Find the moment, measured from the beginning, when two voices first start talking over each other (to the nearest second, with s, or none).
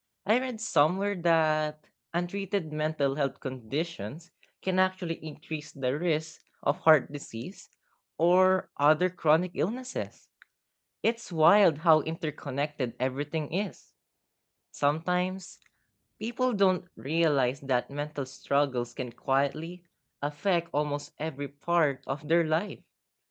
none